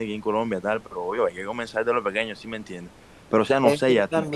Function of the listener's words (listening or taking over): listening